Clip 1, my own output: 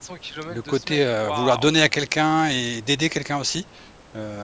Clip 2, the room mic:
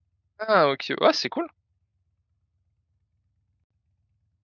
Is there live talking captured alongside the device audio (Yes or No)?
Yes